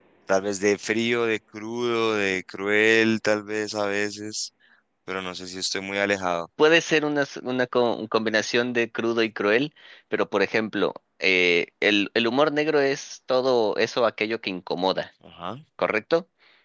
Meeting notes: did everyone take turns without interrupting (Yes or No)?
Yes